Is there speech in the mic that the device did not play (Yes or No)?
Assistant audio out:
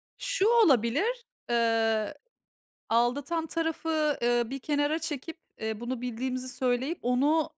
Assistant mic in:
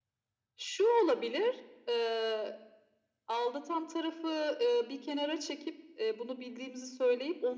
No